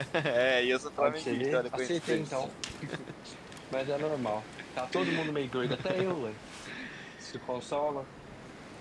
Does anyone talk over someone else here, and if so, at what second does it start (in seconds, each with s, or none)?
1.0 s